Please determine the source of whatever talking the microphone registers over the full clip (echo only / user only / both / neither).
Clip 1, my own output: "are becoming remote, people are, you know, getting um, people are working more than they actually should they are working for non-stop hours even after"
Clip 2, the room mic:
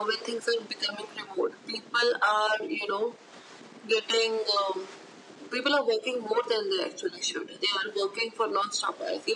echo only